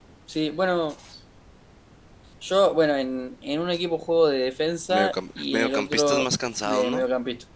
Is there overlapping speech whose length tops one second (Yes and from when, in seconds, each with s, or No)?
Yes, from 4.9 s